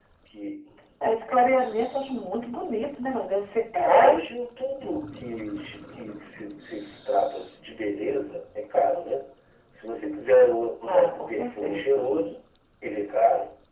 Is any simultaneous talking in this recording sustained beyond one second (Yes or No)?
Yes